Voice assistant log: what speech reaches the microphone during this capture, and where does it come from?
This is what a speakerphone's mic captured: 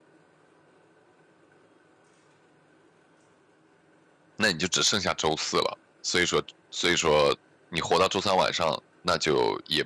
user only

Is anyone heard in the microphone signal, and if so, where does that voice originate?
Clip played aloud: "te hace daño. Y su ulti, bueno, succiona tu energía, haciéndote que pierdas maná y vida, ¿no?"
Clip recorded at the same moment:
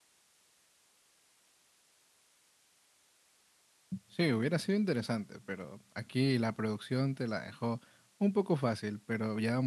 user only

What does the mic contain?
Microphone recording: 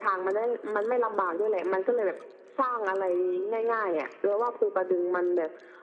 echo only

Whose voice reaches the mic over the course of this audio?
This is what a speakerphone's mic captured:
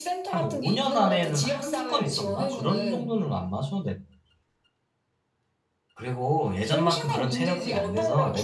both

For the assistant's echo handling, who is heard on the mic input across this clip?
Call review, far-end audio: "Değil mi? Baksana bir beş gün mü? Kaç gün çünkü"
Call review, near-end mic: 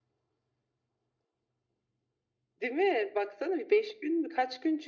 echo only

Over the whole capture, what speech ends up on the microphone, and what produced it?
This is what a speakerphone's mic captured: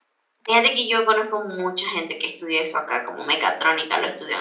user only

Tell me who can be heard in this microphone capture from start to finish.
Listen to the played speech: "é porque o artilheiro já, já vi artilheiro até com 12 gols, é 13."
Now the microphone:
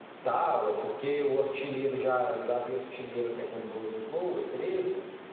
echo only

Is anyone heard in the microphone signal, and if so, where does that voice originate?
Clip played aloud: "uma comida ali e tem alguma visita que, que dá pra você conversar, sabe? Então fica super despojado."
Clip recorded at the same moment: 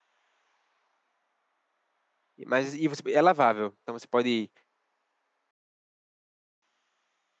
user only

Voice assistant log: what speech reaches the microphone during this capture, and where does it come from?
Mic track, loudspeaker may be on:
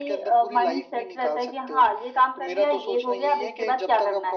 echo only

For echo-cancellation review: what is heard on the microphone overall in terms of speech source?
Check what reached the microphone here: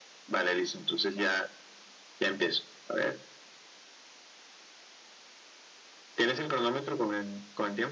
echo only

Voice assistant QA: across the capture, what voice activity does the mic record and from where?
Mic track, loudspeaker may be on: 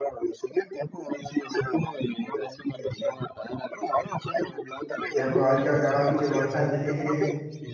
both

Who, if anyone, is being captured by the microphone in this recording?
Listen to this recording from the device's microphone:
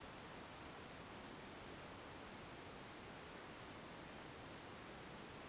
neither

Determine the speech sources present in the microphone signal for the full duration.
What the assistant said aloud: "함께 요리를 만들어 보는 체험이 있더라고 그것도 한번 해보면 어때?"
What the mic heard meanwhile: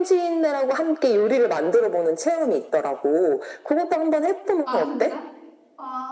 both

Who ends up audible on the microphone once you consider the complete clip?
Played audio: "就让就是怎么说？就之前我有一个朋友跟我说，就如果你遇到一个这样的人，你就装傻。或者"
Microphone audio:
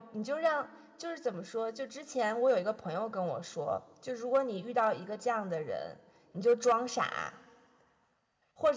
echo only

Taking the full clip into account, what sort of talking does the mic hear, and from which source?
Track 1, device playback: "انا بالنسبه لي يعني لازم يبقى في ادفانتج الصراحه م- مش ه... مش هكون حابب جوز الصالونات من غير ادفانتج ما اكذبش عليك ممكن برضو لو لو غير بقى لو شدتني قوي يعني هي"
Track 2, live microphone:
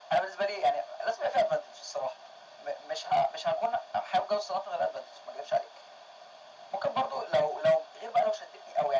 echo only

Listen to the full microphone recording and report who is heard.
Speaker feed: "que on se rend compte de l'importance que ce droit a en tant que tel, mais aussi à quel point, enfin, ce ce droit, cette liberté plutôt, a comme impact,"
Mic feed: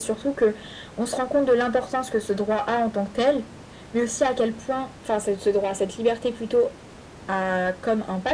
echo only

